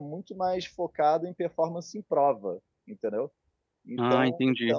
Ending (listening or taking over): listening